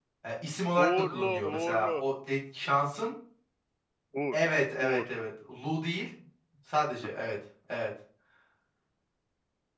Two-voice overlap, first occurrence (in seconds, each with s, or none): 0.8 s